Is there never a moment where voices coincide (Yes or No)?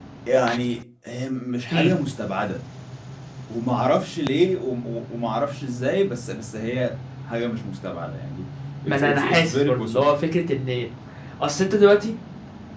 No